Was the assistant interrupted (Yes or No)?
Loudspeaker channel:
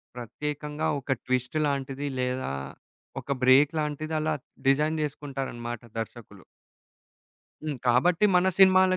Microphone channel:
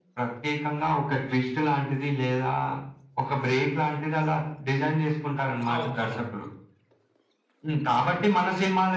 Yes